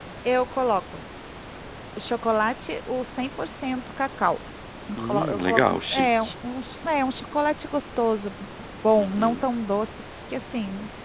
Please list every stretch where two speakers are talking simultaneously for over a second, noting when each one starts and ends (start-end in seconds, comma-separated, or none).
5.0-6.3